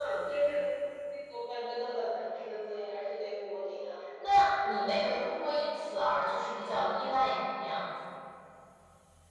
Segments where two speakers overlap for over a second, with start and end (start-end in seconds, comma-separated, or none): none